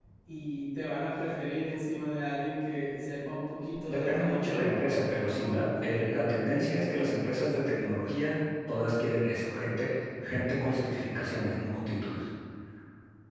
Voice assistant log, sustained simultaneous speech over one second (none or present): present